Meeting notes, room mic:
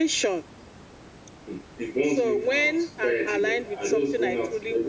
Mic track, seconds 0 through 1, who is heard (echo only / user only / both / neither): echo only